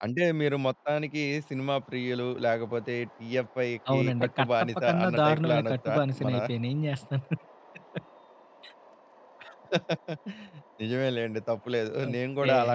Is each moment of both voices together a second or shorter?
No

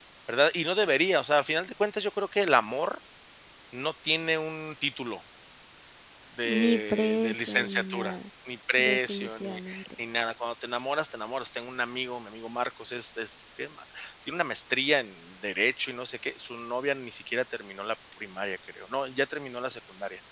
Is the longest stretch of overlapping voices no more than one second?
No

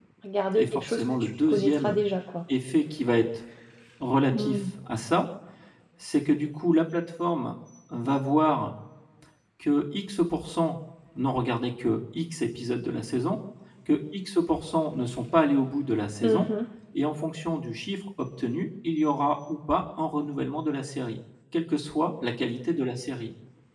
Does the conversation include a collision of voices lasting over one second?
Yes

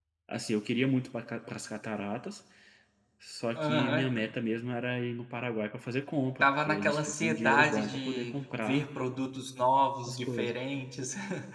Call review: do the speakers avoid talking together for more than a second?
No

